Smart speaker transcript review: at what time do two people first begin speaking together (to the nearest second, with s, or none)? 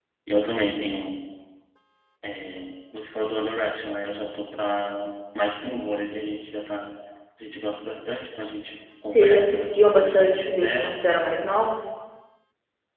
9 s